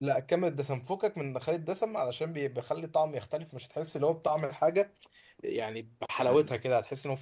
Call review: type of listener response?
listening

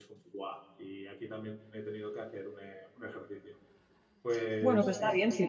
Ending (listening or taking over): taking over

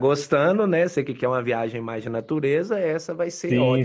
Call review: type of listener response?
taking over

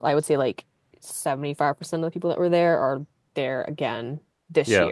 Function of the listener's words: listening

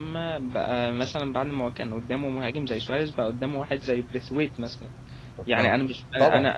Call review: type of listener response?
listening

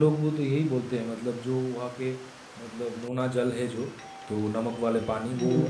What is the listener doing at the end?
listening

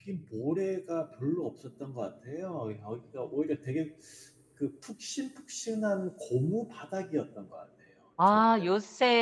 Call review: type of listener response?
taking over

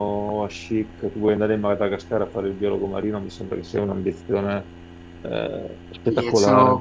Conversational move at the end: taking over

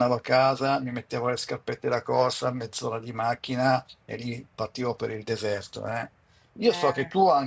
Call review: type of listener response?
listening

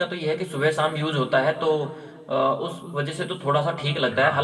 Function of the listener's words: listening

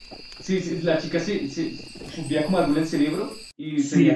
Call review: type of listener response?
taking over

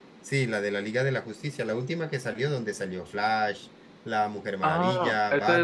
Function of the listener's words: taking over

